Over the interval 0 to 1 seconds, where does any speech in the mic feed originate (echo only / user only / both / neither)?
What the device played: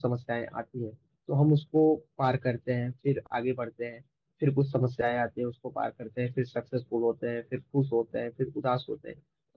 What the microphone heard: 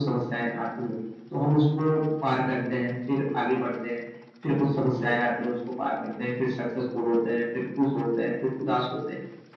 echo only